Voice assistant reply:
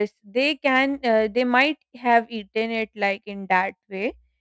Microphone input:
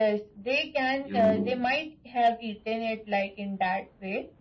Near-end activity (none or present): present